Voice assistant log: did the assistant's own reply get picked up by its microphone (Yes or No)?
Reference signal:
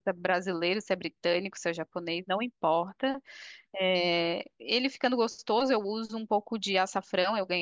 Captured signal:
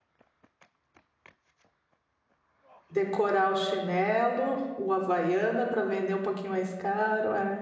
No